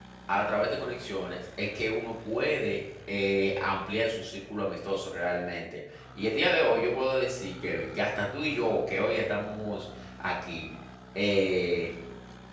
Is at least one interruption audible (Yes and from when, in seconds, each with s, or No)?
No